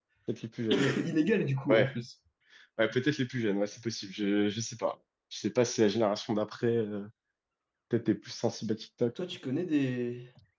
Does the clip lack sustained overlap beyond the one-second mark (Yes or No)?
Yes